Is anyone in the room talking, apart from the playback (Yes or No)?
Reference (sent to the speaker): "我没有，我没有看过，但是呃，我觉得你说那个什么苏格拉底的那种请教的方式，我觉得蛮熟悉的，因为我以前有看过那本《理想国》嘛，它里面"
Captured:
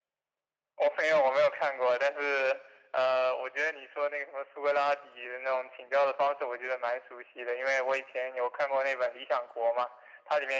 No